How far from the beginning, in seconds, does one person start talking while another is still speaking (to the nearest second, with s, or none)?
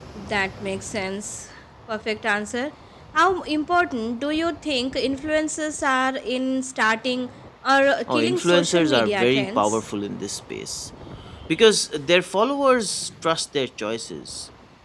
8 s